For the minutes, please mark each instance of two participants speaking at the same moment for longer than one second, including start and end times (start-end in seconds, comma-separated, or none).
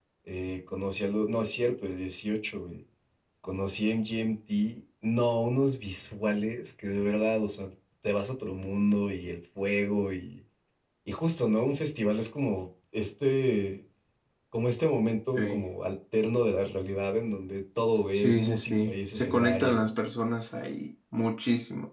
18.1-19.9